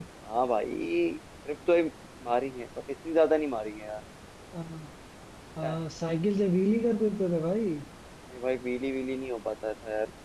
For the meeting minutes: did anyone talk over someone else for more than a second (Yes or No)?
No